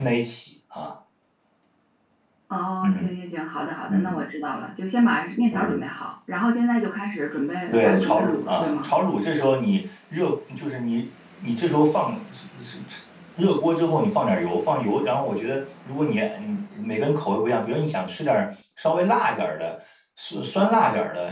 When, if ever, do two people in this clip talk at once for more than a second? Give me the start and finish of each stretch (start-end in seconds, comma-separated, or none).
7.7-8.9